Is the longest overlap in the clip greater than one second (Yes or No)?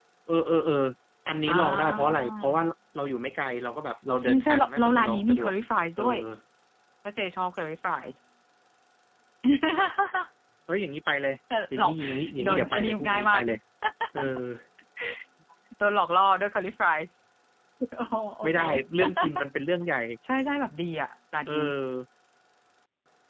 Yes